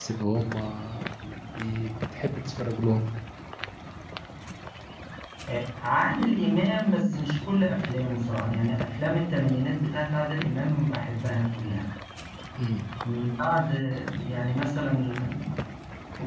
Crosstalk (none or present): none